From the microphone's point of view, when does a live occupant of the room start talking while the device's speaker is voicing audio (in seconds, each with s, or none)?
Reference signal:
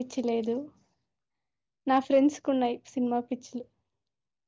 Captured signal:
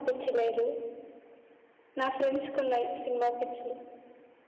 none